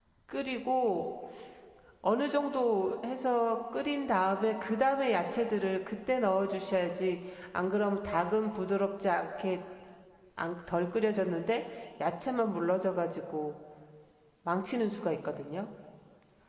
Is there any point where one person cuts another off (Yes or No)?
No